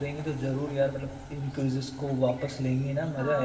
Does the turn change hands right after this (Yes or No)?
Yes